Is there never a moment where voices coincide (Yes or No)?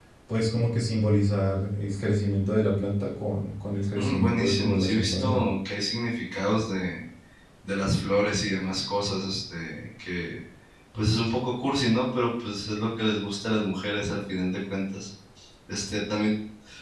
No